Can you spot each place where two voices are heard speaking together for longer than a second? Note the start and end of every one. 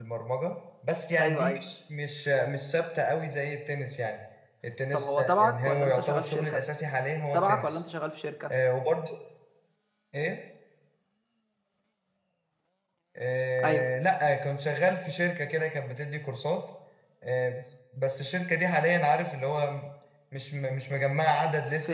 4.9-6.6

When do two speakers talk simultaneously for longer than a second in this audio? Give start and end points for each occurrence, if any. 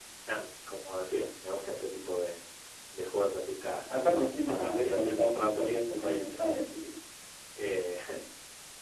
3.9-6.4

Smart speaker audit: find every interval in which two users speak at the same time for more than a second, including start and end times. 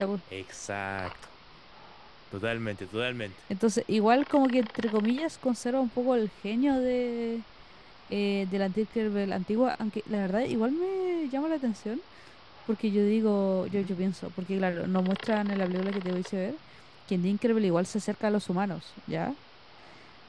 none

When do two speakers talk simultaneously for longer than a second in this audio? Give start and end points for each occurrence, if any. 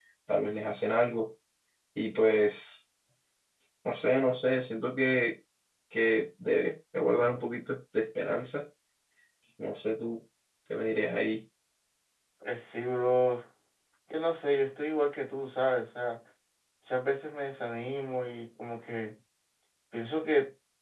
none

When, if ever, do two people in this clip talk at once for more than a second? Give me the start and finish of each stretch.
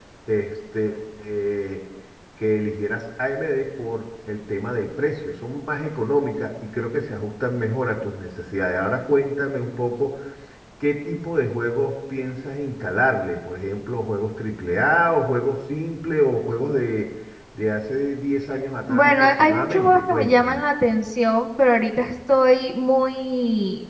18.9-20.6

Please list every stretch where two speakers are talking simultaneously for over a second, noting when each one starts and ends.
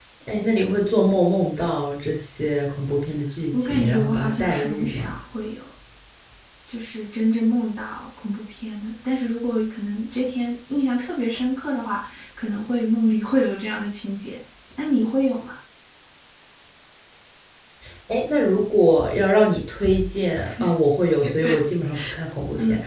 3.5-5.1

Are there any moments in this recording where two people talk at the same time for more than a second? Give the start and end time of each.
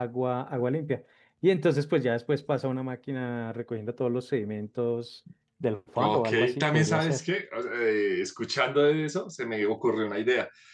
6.0-7.2

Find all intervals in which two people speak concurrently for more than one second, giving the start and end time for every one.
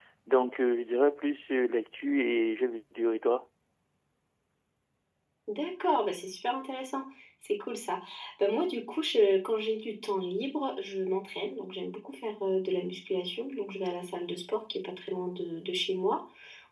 none

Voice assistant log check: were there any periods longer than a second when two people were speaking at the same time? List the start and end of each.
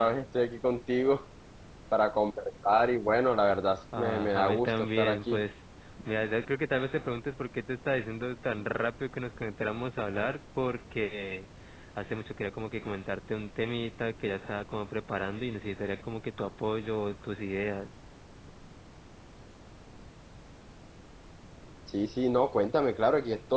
4.0-5.4

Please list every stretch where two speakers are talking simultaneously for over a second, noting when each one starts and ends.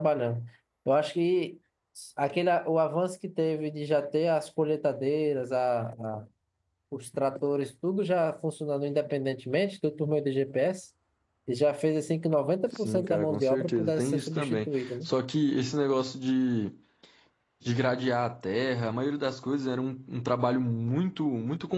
12.8-14.9

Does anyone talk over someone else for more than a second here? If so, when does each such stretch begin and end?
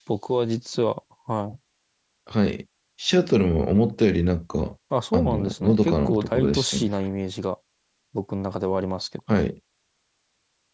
5.1-6.8

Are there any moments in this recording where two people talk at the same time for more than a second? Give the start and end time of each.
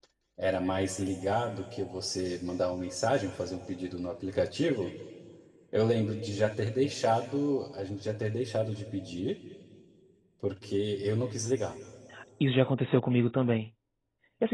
none

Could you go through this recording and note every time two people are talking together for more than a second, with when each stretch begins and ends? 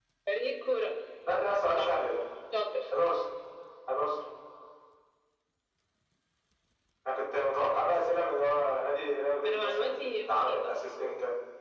9.4-10.7

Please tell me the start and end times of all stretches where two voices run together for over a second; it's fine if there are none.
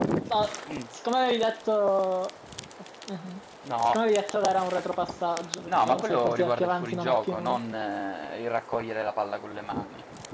5.7-7.6

